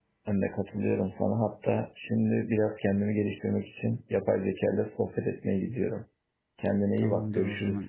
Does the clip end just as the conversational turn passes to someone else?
Yes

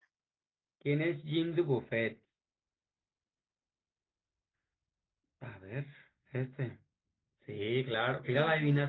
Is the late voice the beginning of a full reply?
No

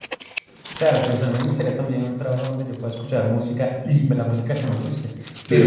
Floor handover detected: No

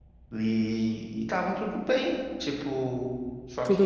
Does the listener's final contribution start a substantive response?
Yes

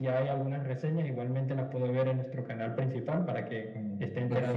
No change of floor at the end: No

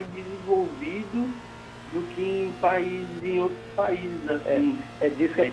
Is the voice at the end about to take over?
Yes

